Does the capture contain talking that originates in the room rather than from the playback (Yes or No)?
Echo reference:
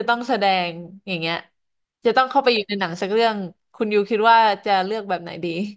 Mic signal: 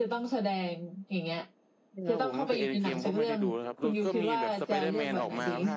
Yes